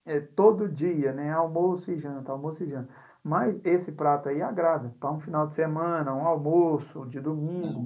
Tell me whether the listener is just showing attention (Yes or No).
Yes